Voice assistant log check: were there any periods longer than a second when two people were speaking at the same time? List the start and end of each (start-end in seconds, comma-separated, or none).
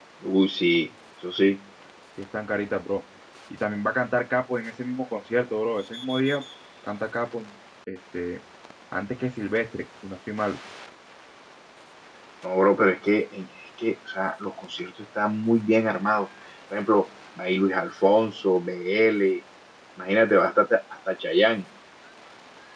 none